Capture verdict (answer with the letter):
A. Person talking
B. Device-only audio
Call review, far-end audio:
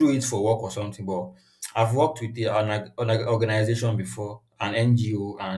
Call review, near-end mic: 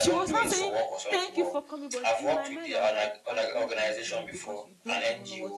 A